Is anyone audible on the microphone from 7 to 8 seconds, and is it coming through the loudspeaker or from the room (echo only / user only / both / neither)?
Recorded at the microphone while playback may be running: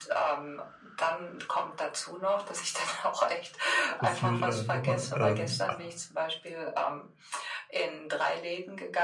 echo only